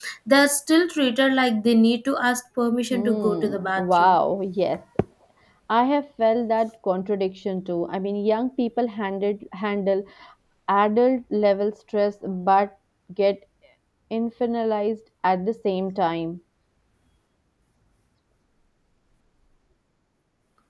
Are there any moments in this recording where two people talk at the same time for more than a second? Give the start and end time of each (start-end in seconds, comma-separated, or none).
2.9-4.2